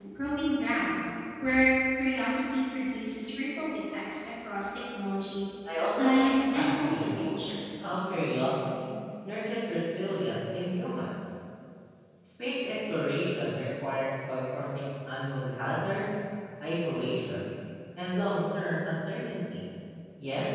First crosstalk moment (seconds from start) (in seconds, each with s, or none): 5.7 s